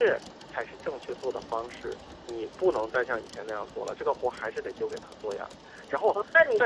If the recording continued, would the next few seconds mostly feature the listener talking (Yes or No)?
Yes